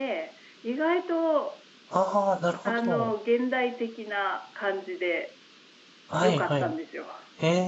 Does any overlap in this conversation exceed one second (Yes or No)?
No